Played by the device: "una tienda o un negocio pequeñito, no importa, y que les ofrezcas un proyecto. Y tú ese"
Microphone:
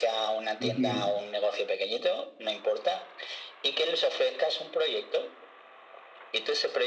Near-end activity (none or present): present